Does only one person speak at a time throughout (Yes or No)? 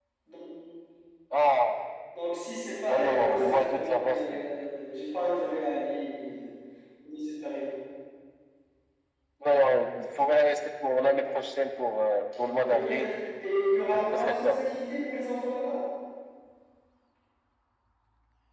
No